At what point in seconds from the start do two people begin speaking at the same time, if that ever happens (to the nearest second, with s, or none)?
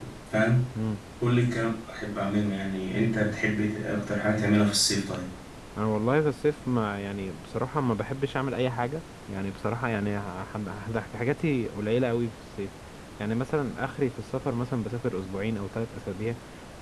none